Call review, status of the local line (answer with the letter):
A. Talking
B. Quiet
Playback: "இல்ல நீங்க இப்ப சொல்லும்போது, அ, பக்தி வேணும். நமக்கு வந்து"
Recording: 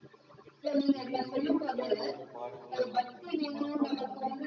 A